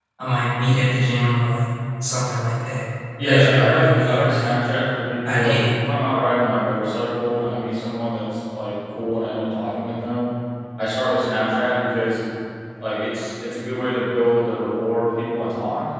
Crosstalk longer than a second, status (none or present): present